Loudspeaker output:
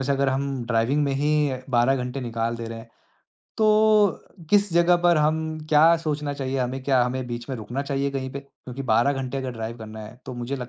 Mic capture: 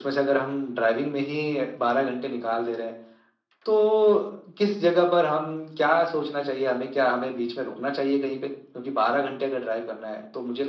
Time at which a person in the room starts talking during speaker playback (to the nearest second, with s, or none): none